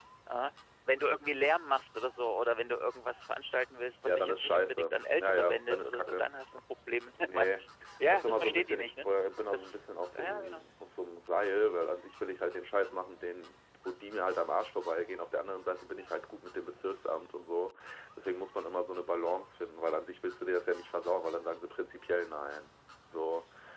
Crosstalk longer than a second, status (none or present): present